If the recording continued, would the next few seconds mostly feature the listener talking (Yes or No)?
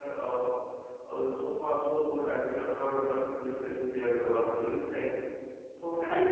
No